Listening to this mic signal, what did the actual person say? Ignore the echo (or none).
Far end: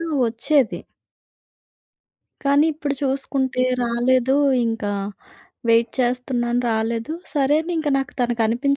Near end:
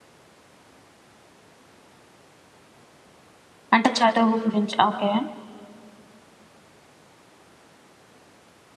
అంటే చదువు గురించి. ఓకే.